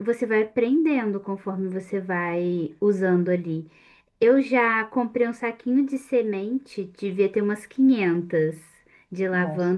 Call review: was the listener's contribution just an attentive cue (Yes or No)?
Yes